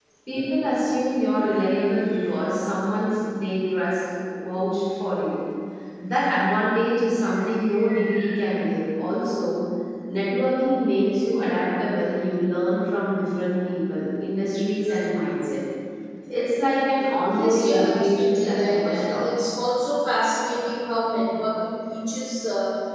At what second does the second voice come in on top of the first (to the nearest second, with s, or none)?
17 s